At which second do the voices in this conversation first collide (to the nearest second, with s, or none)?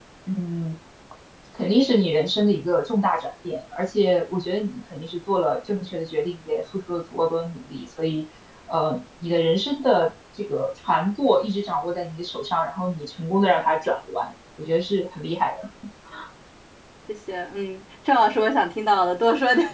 none